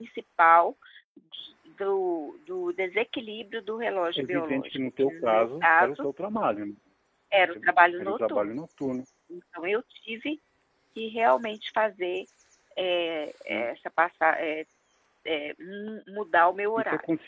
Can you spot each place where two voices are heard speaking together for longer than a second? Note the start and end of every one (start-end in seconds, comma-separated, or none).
4.2-6.0